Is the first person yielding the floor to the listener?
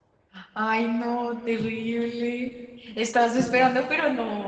No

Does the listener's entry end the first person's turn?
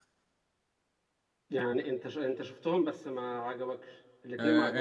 Yes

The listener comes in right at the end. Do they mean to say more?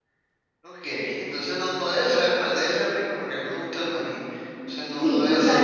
Yes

